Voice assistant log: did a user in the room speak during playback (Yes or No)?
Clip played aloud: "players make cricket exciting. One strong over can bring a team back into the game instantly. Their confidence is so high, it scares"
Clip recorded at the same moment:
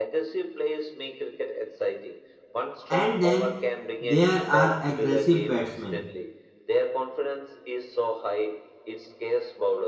Yes